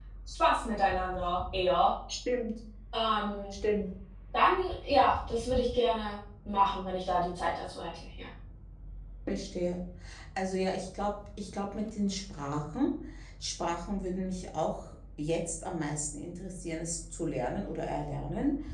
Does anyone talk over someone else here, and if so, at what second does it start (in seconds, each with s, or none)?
none